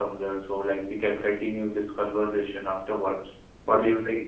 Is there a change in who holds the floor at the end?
Yes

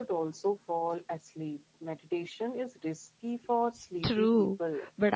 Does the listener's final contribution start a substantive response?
Yes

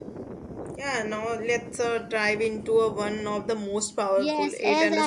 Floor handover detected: Yes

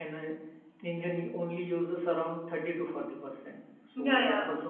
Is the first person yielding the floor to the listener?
Yes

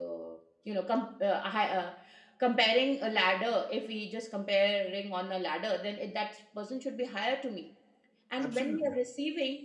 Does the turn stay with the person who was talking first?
Yes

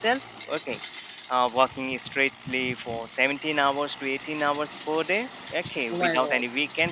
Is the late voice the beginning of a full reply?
No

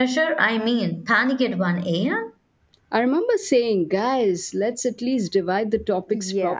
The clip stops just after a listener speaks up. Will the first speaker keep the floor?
No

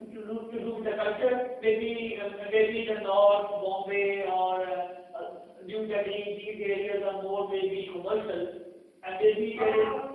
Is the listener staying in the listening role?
Yes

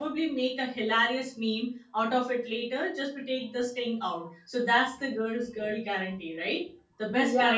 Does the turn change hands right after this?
Yes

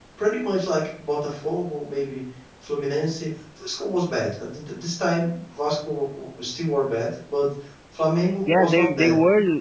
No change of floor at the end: No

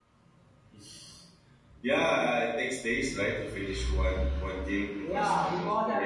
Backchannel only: No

